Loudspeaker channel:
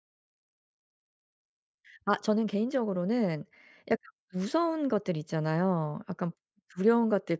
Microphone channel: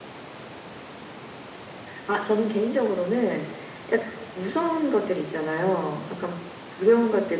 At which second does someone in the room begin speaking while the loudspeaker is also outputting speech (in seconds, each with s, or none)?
none